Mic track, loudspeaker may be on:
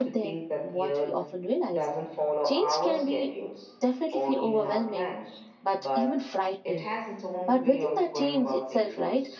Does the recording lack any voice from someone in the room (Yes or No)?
No